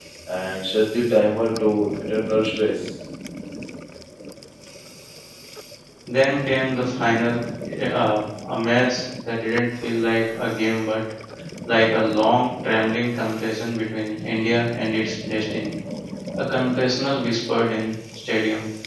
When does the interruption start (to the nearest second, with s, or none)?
none